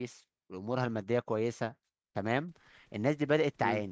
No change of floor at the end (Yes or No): Yes